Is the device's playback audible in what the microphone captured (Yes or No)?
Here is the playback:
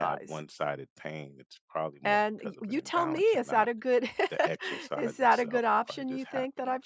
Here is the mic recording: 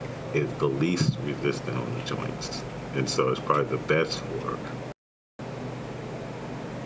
No